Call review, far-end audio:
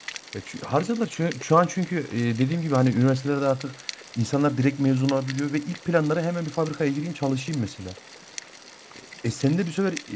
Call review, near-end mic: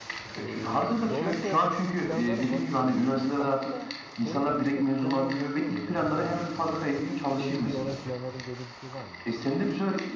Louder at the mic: echo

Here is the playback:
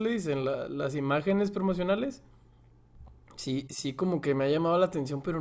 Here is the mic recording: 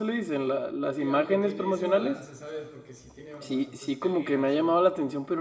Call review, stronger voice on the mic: echo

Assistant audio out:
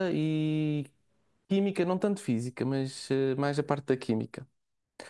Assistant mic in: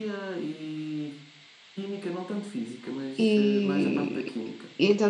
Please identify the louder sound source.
user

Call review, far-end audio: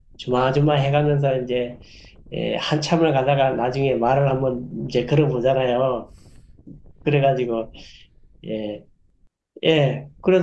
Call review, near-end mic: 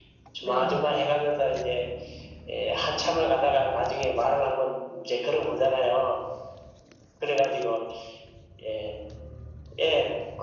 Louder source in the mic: echo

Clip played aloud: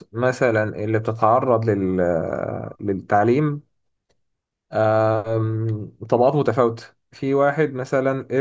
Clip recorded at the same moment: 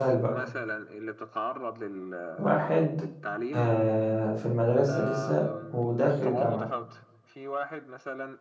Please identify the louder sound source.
user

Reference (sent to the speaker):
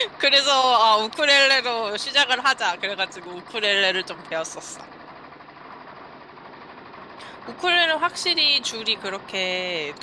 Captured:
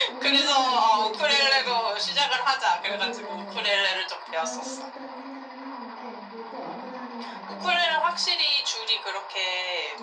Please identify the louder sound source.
echo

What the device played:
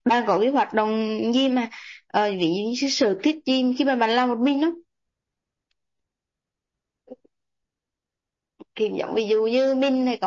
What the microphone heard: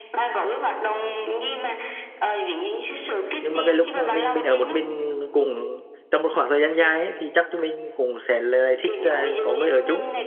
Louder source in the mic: user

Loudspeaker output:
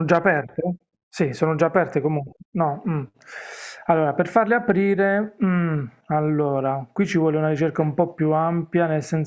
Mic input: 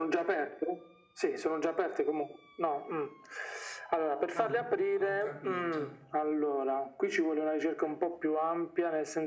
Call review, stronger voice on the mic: echo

